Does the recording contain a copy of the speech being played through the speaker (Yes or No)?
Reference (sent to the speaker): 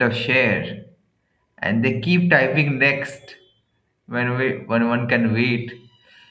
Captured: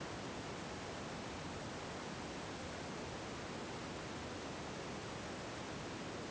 No